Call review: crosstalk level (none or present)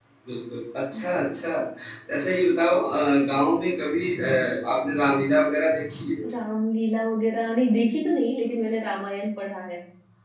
none